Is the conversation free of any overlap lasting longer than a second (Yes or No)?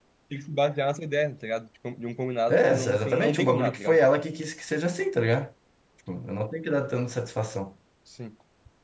No